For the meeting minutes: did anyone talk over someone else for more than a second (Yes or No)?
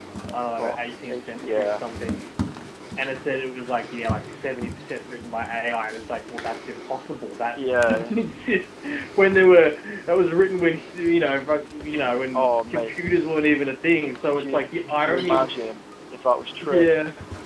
Yes